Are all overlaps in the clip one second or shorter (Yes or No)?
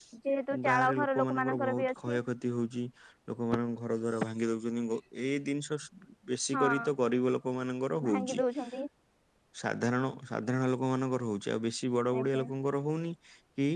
No